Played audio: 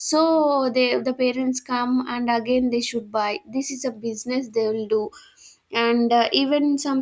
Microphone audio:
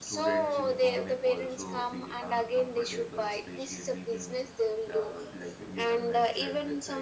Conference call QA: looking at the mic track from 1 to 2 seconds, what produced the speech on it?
both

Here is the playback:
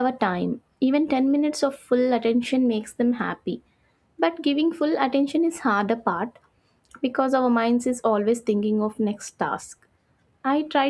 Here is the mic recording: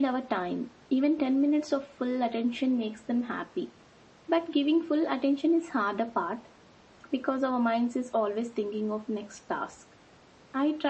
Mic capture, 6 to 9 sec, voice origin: echo only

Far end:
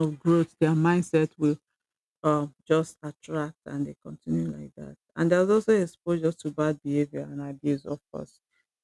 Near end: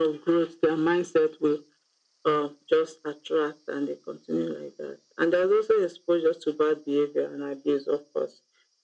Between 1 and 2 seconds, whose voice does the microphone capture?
echo only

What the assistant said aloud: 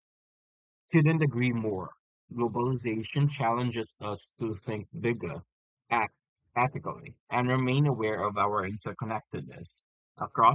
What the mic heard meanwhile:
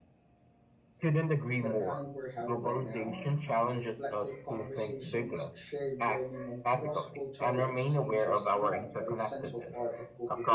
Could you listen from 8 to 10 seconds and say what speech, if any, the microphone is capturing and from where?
both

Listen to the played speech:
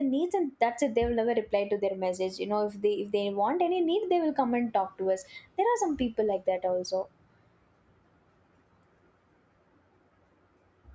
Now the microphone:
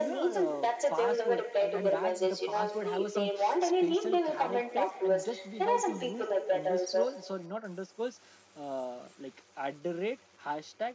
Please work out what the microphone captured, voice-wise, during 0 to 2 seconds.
both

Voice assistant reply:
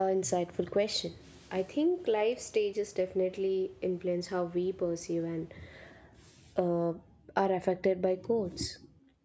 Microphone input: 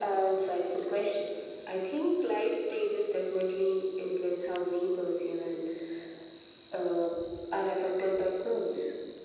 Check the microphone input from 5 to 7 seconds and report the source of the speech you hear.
echo only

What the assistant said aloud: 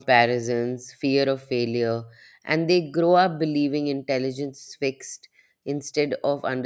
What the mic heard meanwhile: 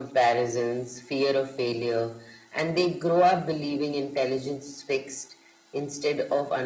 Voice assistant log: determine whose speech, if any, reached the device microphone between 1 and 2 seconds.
echo only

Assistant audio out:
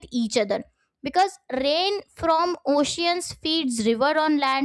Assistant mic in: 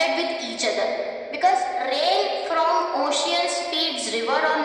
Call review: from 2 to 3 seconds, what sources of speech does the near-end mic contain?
echo only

